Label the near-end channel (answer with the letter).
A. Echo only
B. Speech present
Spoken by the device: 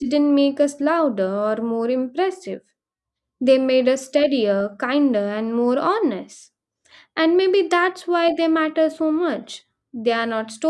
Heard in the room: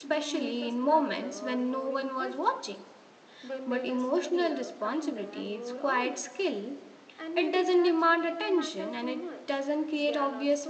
B